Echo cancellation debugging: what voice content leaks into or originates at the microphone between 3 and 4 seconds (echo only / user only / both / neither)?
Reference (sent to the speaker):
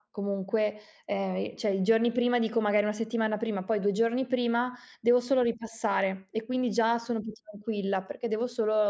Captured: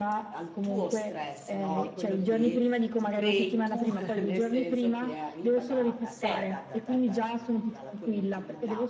both